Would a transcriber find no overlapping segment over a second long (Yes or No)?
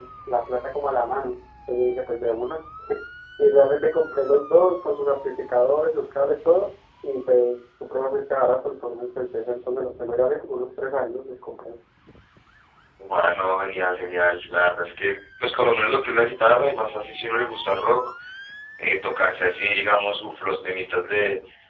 Yes